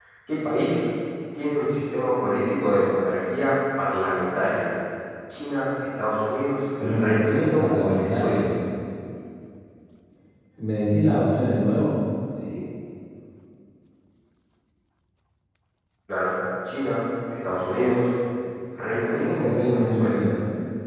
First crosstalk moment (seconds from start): 6.8 s

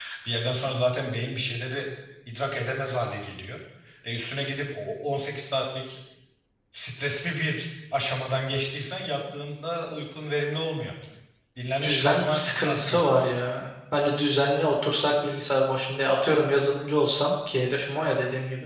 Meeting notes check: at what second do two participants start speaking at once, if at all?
11.8 s

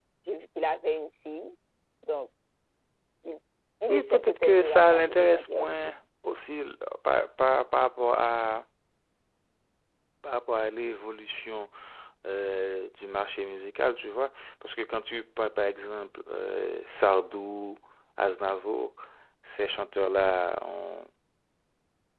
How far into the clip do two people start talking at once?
3.9 s

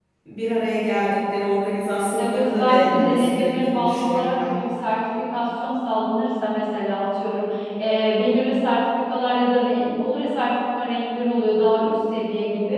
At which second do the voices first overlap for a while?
2.2 s

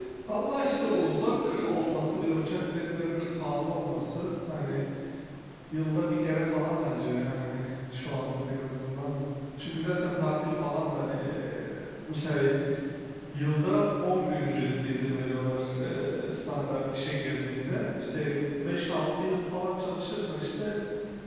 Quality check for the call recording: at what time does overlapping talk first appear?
0.6 s

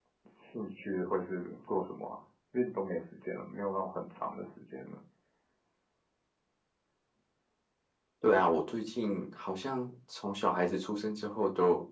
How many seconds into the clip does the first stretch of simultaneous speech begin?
none

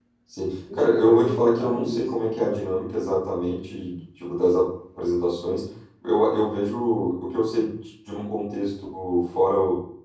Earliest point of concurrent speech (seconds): 0.7 s

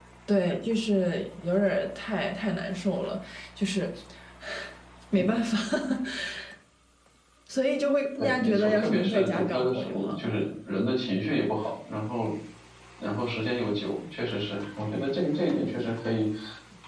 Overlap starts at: 8.2 s

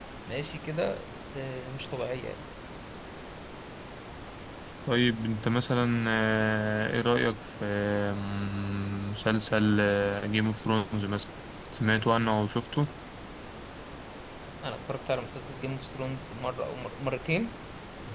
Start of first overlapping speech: none

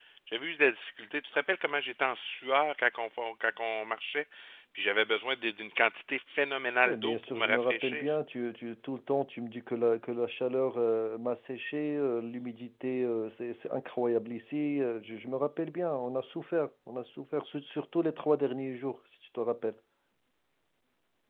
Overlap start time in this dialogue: 6.8 s

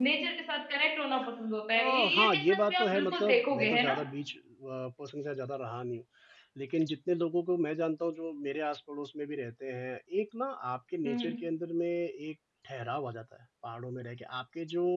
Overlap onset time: 1.7 s

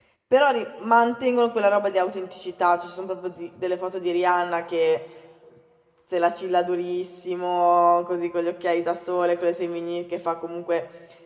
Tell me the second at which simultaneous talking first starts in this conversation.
none

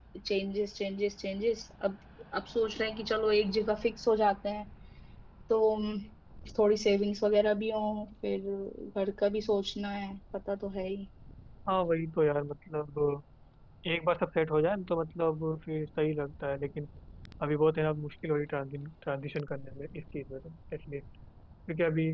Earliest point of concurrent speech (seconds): none

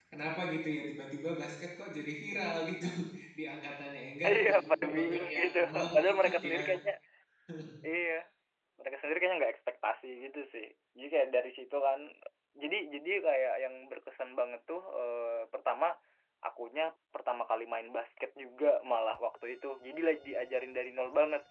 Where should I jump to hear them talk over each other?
4.2 s

